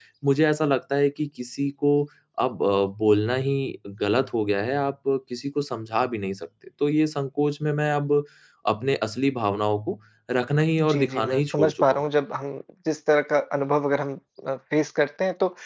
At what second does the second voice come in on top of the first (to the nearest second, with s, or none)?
11 s